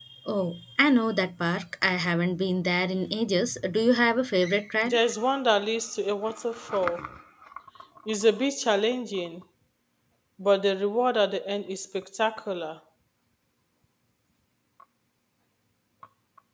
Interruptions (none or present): none